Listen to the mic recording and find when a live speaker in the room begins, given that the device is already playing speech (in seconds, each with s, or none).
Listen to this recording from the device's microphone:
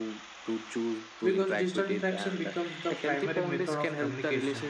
1.2 s